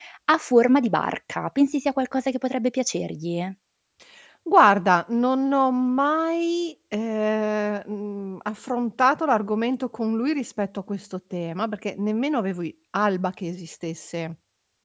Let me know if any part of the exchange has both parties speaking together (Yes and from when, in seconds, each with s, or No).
No